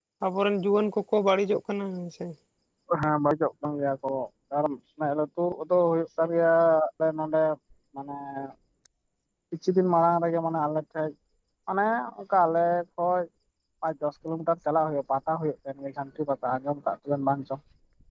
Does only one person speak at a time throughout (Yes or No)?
Yes